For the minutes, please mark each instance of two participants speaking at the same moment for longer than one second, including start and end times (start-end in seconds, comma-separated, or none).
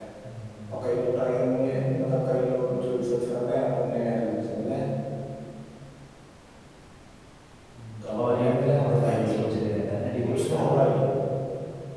8.0-9.2